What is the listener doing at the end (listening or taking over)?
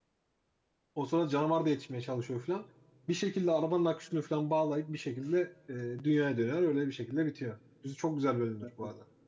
taking over